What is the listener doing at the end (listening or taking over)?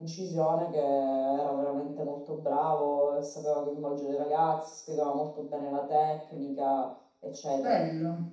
taking over